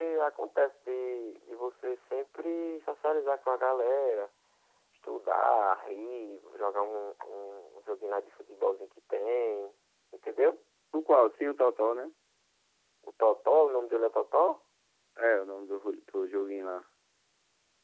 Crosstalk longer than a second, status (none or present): none